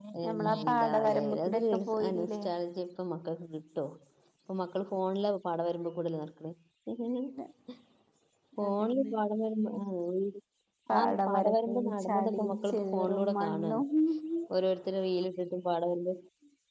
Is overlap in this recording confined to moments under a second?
No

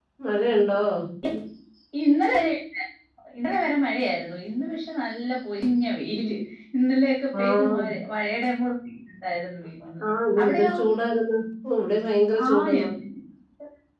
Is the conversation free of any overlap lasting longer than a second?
Yes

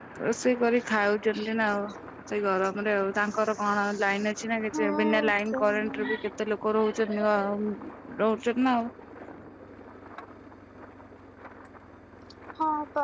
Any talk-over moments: Yes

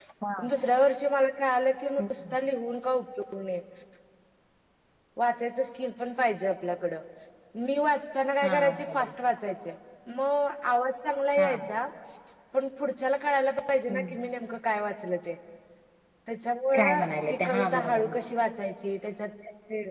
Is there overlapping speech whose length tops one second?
Yes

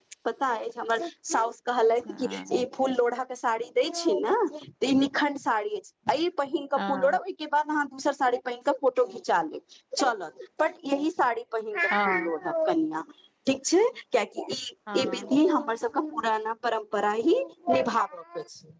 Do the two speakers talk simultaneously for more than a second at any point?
No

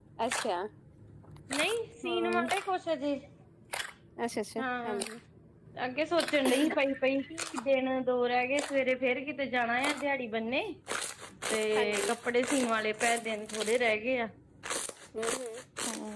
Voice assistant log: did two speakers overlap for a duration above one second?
No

